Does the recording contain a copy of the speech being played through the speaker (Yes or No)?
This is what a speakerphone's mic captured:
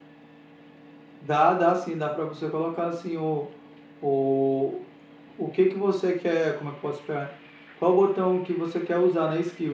No